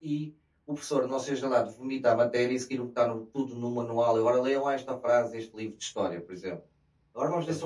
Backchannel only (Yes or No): Yes